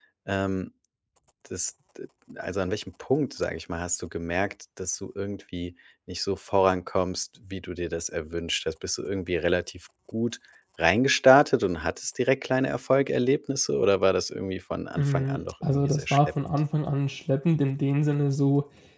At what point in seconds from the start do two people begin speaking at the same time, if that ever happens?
15.0 s

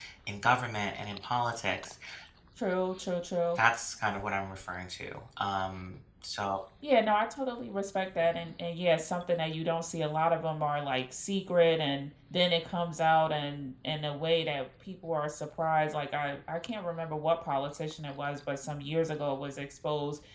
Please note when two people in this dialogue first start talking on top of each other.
none

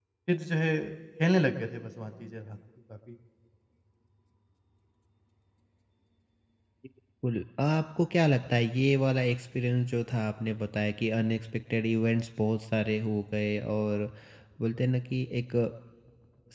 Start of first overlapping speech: none

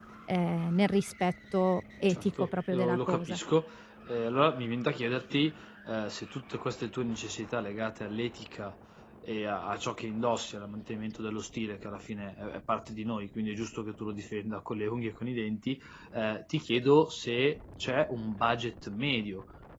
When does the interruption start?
2.1 s

